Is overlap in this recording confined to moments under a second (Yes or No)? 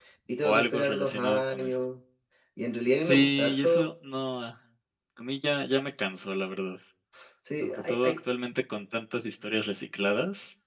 No